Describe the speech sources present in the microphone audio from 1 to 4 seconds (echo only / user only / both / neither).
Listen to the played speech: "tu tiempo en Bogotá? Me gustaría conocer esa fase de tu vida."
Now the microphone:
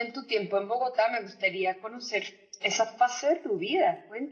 echo only